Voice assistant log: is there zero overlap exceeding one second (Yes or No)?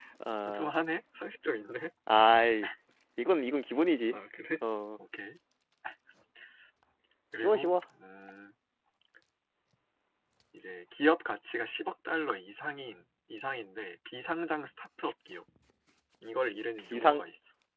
Yes